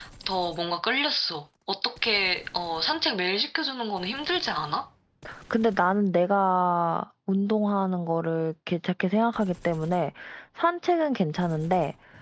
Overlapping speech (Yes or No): No